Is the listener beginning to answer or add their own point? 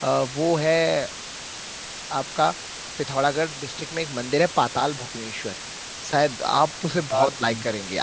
No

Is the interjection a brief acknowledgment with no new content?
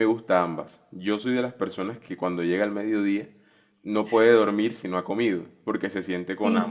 Yes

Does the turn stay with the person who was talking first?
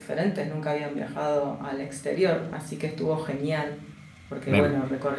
Yes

